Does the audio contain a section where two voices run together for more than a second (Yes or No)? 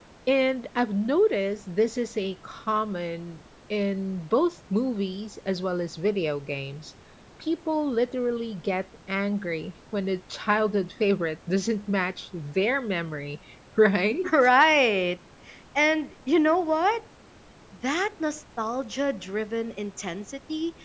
No